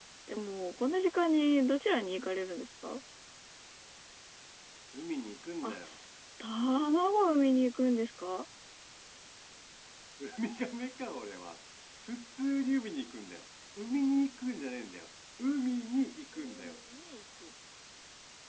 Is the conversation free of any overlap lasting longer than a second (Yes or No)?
Yes